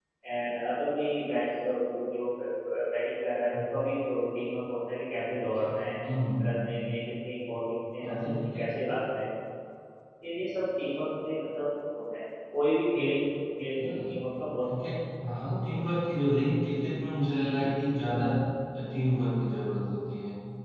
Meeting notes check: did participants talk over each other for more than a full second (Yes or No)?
Yes